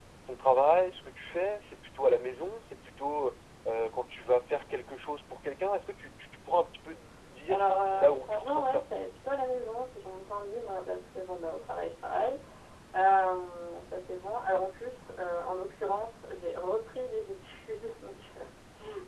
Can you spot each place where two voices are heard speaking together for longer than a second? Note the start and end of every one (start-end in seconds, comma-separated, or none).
7.5-8.8